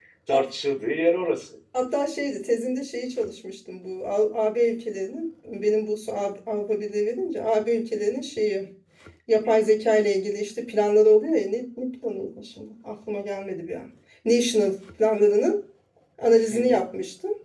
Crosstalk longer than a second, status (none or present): none